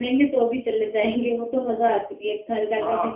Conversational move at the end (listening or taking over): taking over